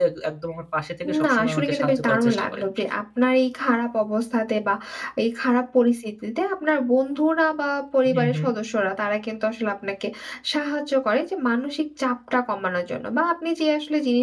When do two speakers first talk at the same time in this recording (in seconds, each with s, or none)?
1.2 s